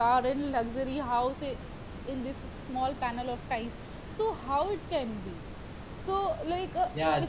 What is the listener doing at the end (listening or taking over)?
taking over